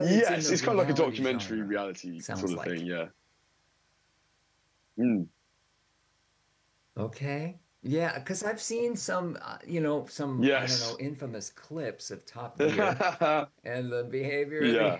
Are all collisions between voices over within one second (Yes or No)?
No